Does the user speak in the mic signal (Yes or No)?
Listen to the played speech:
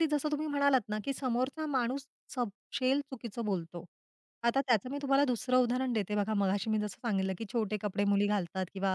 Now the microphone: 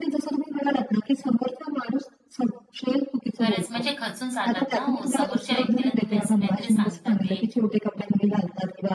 Yes